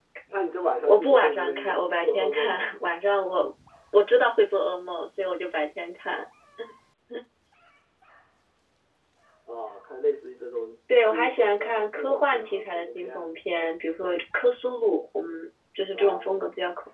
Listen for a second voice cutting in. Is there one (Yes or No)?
Yes